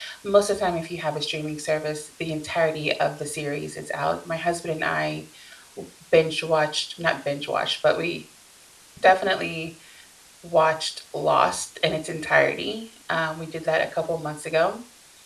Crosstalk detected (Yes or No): No